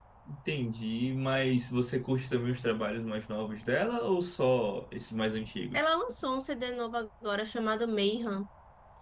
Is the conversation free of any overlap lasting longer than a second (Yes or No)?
Yes